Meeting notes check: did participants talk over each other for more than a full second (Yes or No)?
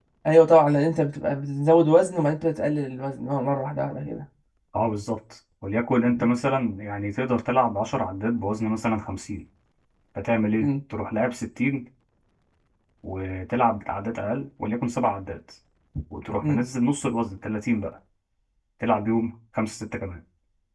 No